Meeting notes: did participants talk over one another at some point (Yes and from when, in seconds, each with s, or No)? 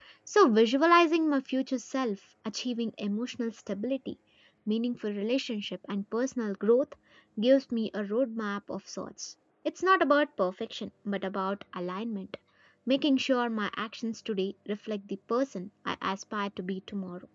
No